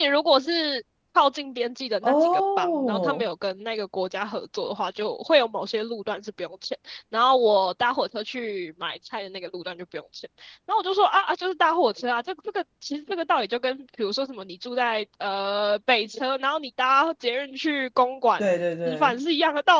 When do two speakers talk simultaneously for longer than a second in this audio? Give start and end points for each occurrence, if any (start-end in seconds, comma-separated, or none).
2.0-3.3